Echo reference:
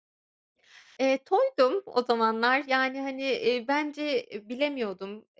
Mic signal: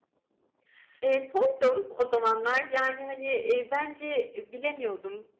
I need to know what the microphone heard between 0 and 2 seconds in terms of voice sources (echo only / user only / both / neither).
echo only